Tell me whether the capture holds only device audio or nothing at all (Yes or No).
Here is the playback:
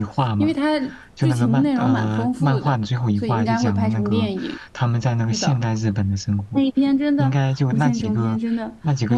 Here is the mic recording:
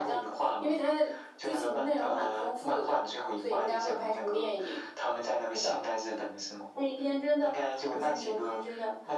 Yes